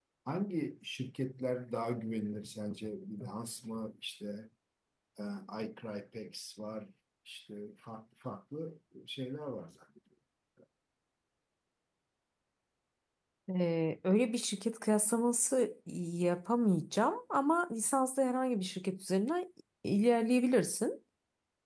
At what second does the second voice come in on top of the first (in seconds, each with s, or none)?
none